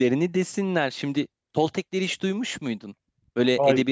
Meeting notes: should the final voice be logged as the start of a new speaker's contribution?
No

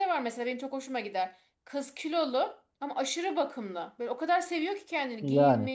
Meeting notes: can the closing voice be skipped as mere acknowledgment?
Yes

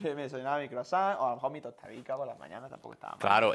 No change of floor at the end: No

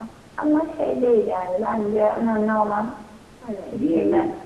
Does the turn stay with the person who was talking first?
No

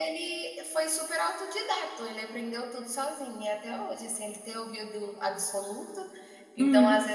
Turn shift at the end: No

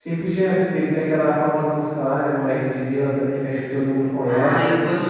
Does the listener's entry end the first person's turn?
Yes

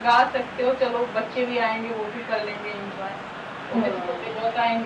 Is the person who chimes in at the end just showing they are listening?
Yes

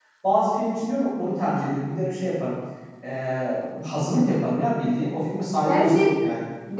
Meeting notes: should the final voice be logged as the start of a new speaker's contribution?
Yes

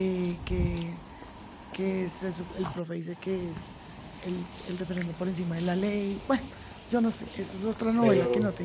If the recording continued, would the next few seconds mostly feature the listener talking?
Yes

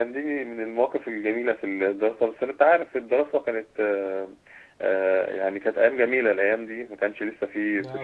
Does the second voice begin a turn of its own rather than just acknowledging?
No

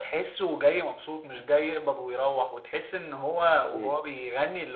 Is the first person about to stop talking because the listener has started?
No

